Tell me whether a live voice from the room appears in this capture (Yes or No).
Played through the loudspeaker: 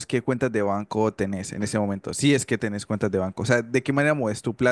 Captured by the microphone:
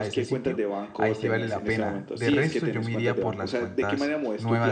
Yes